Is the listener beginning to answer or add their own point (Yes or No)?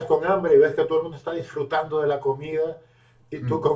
No